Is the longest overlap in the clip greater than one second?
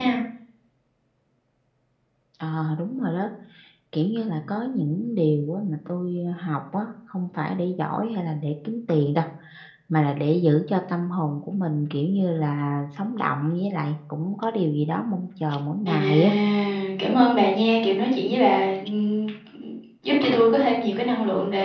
No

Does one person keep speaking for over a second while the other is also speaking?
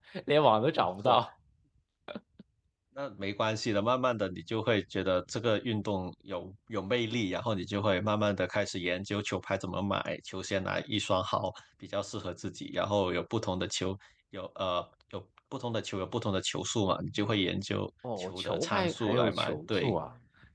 Yes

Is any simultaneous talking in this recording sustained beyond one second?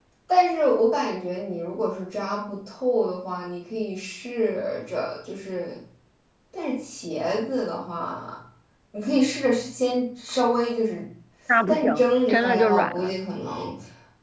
Yes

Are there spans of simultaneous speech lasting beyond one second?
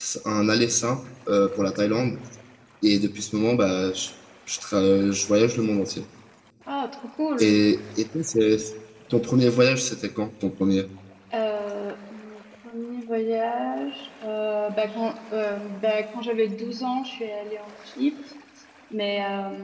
No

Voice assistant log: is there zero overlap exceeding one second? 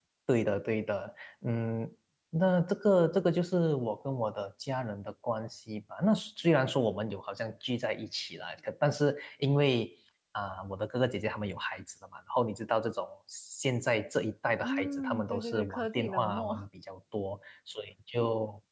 No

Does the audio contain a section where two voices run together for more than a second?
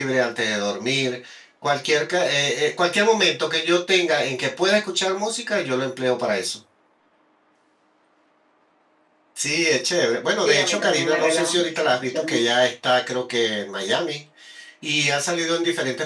Yes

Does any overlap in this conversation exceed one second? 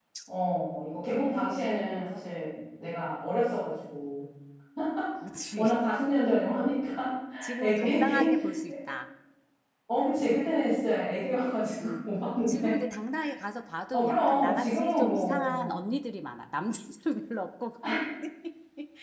Yes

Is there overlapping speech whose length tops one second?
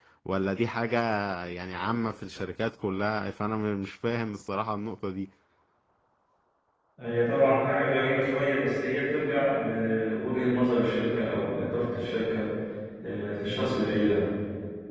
No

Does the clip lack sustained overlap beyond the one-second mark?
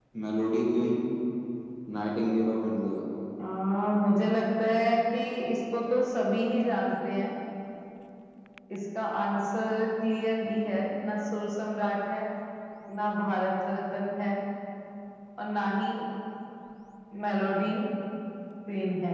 Yes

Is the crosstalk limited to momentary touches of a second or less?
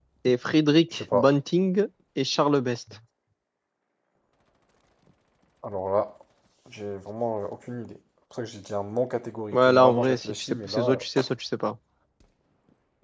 No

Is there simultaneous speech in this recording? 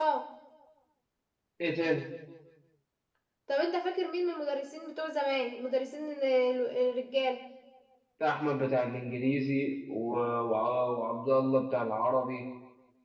No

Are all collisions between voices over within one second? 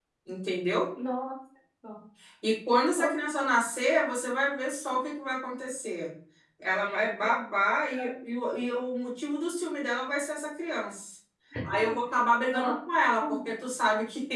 Yes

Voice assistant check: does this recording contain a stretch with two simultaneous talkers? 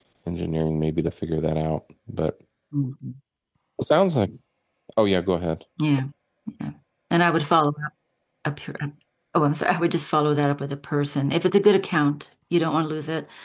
No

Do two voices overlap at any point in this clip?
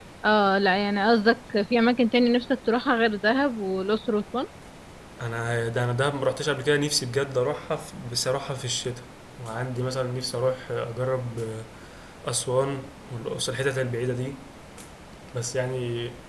No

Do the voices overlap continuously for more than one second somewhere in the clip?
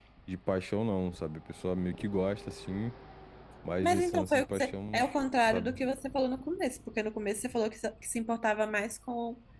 Yes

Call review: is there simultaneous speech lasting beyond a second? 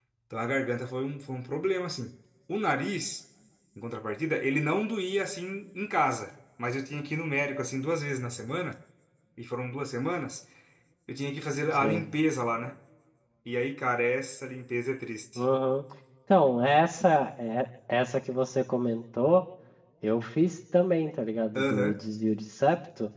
No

